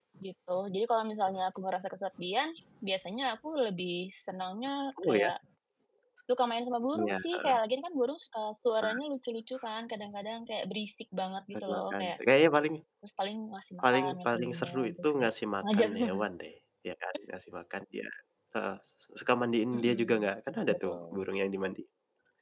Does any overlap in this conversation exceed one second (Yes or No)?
Yes